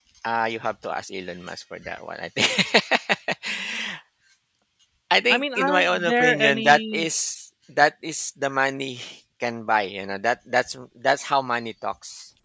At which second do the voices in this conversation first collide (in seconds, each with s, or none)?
5.3 s